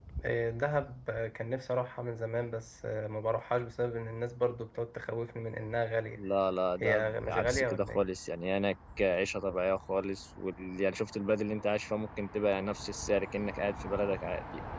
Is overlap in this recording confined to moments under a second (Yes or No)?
No